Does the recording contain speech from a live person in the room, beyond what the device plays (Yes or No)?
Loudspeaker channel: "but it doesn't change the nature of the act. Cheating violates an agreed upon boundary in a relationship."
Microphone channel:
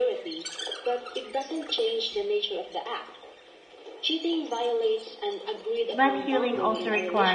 Yes